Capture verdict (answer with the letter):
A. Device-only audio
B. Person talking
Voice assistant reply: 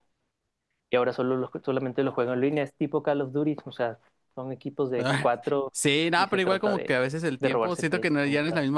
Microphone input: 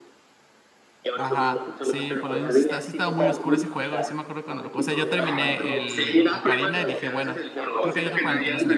B